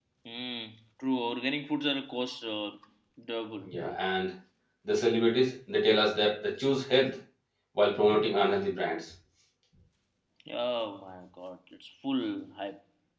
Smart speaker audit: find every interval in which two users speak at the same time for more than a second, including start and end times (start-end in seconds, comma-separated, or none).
none